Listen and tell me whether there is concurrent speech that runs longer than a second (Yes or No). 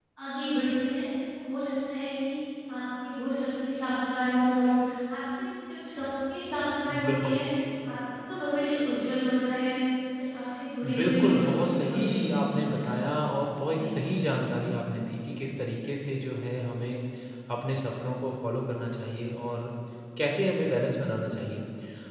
Yes